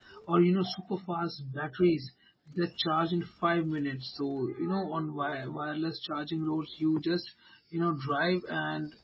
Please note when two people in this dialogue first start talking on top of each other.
none

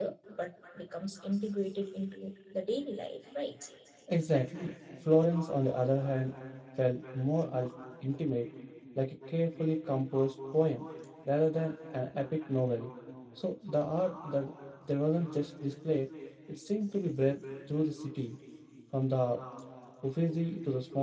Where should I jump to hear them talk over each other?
none

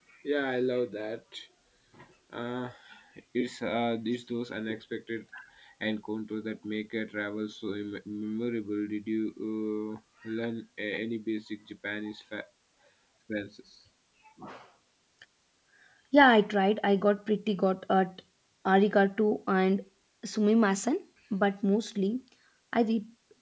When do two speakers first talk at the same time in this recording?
none

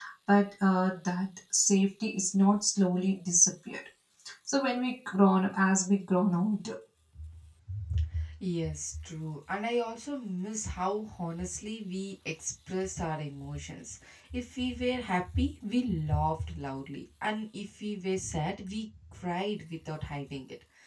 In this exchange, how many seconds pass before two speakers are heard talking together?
none

